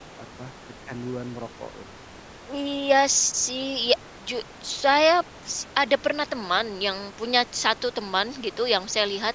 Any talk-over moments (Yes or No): No